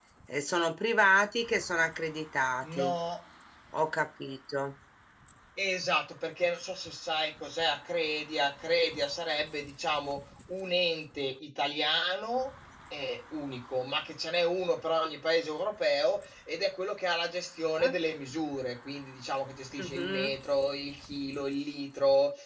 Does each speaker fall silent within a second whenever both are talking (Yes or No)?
Yes